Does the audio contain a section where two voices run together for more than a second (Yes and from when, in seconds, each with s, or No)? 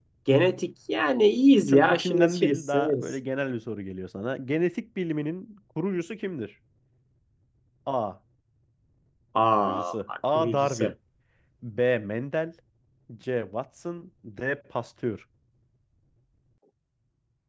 Yes, from 1.7 s